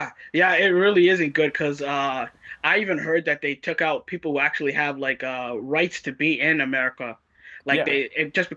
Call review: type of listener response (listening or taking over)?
listening